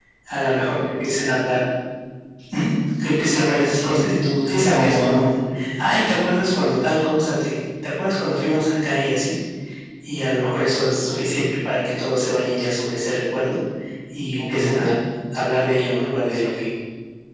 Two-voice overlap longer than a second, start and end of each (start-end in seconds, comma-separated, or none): 3.8-5.3